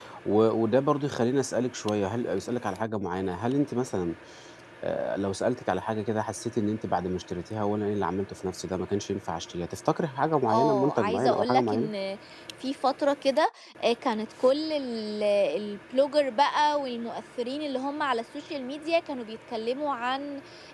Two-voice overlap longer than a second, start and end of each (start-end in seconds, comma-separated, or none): 10.5-11.9